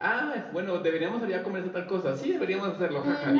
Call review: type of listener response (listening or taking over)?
taking over